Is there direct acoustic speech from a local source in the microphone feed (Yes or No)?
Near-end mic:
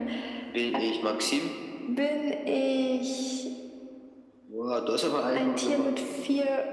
No